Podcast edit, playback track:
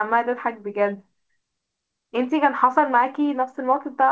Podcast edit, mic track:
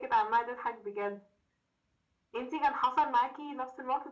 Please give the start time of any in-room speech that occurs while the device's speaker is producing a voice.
none

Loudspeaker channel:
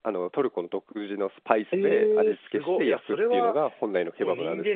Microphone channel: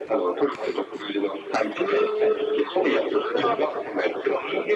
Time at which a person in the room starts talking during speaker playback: none

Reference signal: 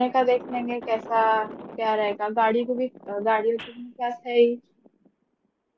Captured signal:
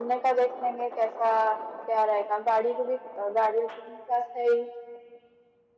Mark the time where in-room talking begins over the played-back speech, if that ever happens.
none

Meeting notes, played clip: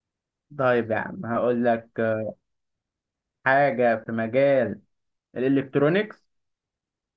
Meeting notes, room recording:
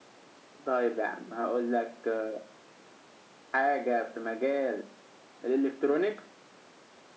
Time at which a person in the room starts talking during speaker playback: none

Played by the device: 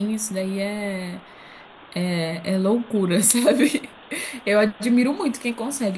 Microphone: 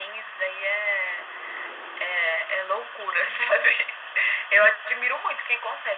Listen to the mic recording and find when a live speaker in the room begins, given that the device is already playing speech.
none

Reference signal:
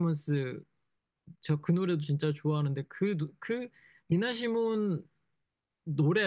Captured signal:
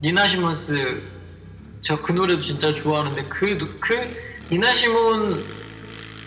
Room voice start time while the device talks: none

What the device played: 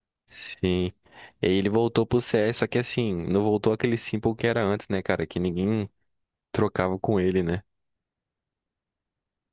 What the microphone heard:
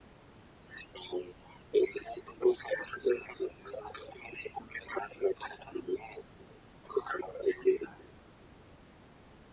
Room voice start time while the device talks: none

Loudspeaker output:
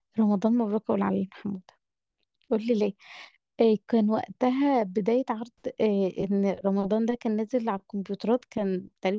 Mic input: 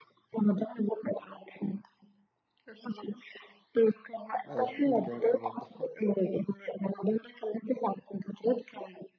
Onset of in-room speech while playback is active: 4.5 s

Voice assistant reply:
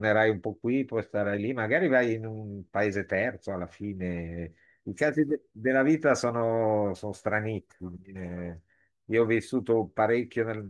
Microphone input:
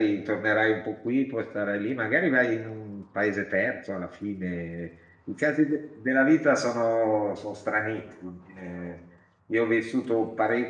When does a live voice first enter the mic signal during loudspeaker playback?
none

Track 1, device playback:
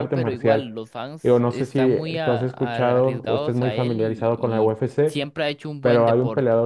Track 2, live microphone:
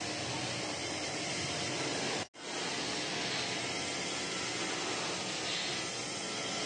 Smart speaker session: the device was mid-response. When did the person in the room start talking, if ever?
none

